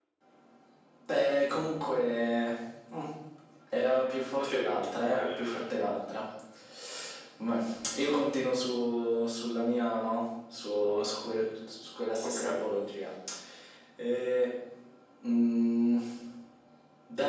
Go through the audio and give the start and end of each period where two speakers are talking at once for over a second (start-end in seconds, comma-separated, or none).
4.4-5.6